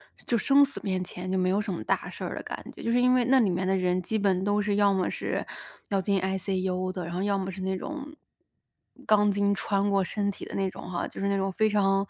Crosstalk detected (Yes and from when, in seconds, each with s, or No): No